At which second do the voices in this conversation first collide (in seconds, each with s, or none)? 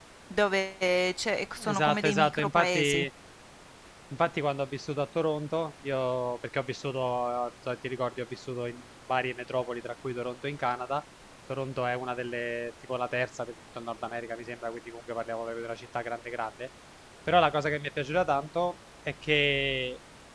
1.6 s